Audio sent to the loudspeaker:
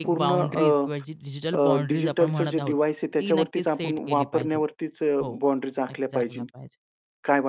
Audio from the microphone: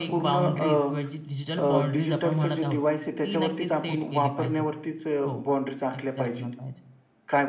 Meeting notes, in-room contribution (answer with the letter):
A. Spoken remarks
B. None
B